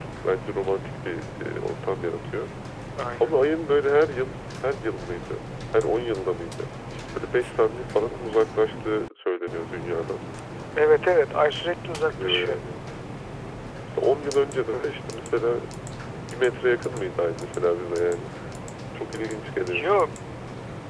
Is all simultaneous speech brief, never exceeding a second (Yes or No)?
Yes